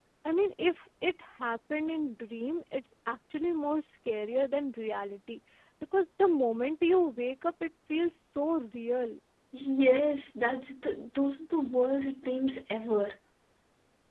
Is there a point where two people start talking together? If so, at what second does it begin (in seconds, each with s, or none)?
none